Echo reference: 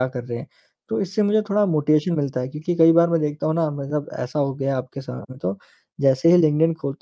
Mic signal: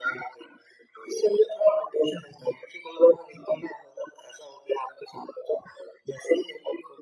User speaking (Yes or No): No